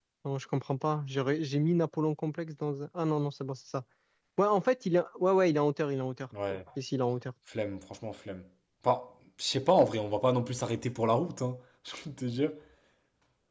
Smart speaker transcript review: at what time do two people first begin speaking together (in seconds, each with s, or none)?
none